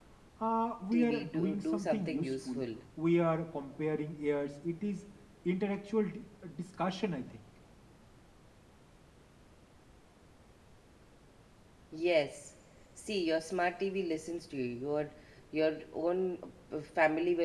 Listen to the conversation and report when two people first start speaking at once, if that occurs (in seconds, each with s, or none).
0.9 s